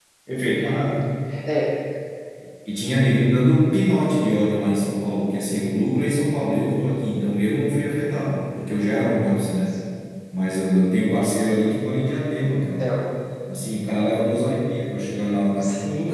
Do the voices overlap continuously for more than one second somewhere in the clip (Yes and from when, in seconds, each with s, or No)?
No